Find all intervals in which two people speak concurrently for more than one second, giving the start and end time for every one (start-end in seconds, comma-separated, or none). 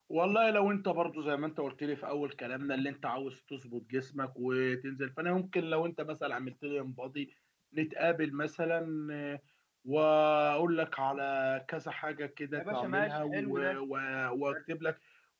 12.5-13.8